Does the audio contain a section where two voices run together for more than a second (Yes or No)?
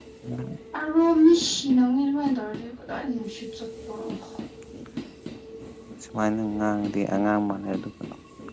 No